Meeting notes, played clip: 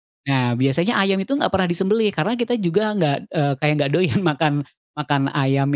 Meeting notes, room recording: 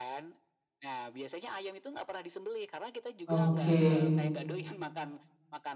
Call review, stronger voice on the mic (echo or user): user